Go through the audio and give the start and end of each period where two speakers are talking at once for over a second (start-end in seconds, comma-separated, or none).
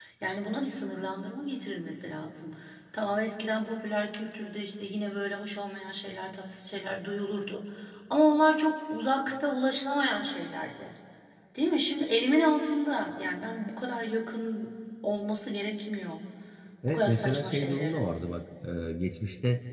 16.9-18.1